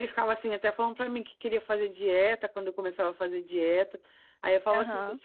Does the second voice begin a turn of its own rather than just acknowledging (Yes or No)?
No